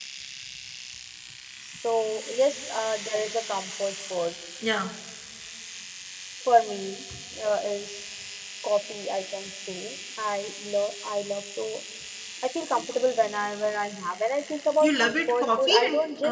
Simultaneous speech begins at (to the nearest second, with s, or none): 15 s